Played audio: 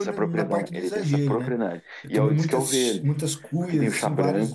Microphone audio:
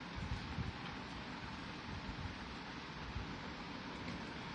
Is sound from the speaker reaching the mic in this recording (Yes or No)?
No